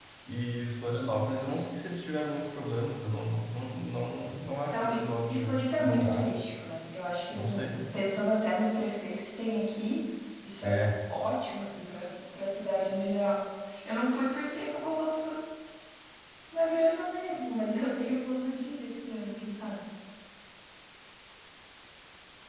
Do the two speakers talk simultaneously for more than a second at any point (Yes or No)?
Yes